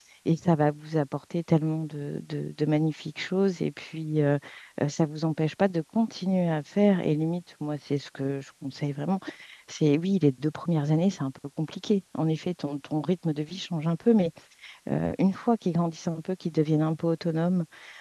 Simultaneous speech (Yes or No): No